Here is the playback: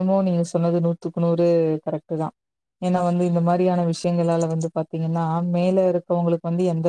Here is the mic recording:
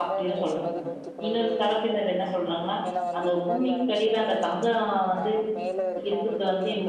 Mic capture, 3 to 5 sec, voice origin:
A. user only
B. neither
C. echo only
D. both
D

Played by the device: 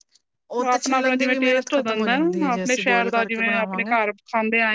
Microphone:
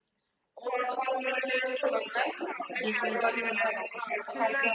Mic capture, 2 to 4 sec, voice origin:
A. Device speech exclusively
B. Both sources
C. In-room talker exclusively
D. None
B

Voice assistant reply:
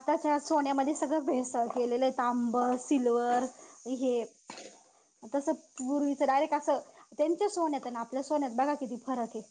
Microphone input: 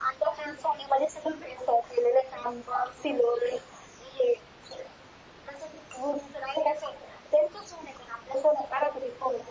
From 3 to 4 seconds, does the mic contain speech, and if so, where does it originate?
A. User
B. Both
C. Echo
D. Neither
C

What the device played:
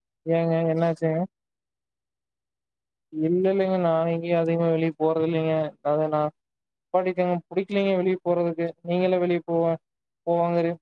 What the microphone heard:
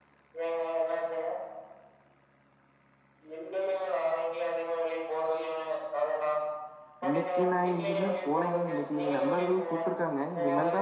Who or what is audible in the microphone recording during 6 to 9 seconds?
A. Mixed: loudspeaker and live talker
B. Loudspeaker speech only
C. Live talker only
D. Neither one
A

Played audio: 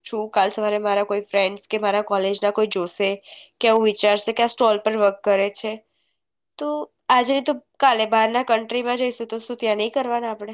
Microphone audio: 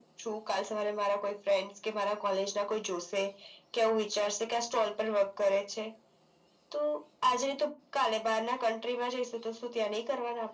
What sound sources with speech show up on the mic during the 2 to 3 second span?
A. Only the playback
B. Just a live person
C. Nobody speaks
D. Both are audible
A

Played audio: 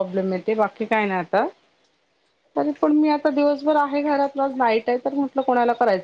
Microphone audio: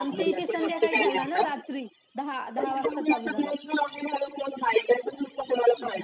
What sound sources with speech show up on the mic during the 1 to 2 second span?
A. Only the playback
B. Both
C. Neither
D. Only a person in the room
B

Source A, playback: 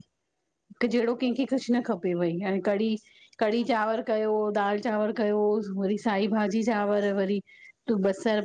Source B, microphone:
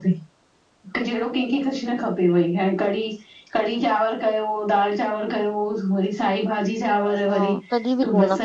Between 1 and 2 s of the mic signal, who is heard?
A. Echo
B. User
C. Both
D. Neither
A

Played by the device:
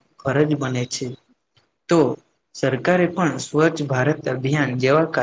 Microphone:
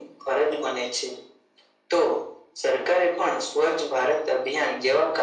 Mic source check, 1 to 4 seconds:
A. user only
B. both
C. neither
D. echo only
D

